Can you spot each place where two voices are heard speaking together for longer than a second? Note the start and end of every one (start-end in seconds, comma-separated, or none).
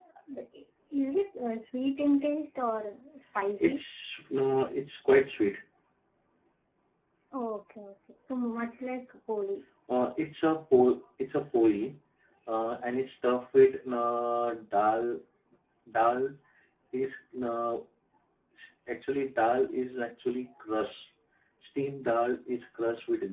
none